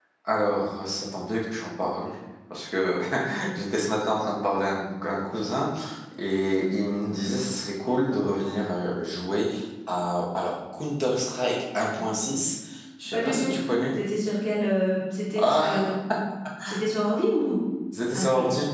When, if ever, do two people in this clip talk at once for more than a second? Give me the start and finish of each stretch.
none

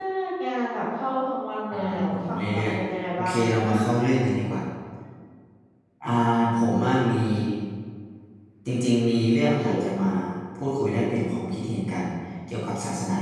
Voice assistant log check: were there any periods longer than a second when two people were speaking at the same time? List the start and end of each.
1.7-3.6

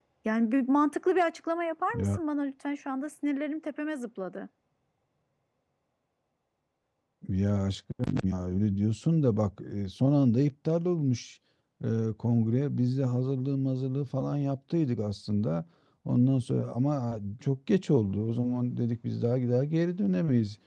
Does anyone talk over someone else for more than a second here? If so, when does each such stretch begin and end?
none

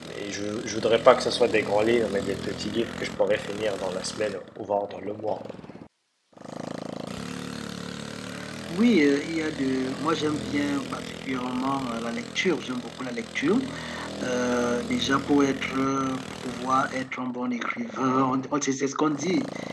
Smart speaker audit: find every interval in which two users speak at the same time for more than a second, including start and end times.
none

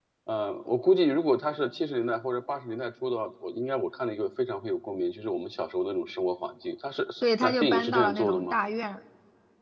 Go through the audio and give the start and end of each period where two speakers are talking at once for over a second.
7.2-8.6

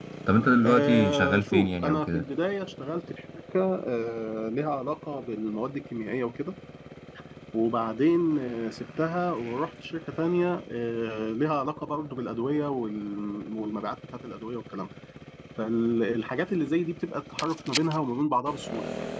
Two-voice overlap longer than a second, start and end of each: 0.7-2.2

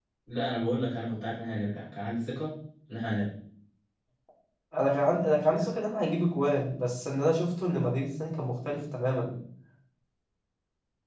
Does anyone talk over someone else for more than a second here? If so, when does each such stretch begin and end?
none

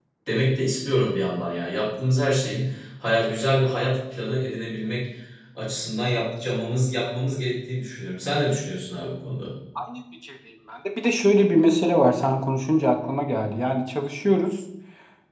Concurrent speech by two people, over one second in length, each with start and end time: none

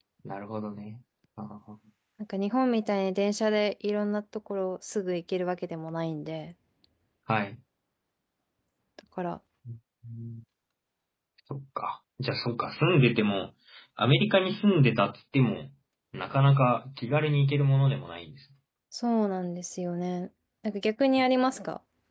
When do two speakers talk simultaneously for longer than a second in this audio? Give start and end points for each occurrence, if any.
none

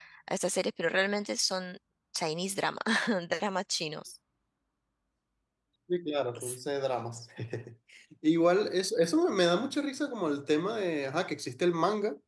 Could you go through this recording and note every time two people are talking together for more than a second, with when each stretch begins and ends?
none

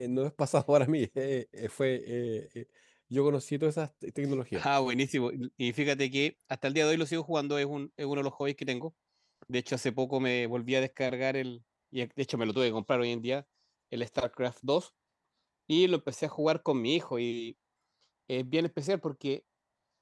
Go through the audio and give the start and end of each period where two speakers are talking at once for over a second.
none

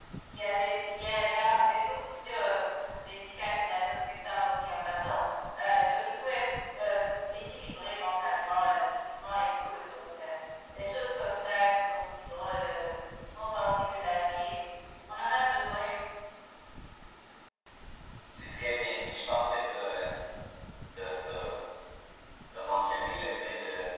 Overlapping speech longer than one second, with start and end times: none

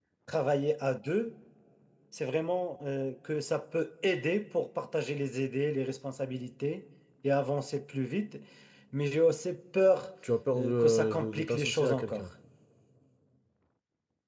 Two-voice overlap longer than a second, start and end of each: 10.6-12.3

